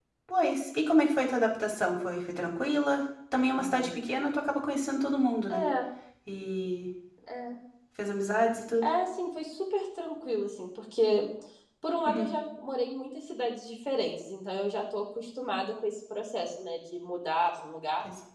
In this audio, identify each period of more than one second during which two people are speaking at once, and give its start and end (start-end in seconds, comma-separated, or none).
none